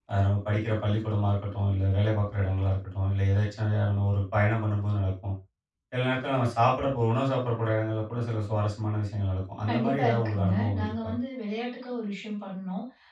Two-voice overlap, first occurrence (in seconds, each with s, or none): 9.7 s